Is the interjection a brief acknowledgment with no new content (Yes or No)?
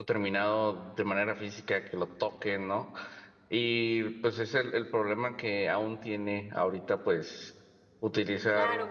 No